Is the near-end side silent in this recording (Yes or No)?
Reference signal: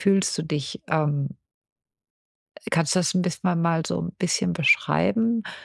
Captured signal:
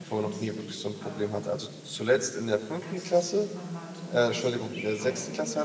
No